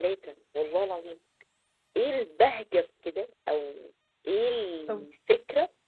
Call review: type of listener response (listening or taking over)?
listening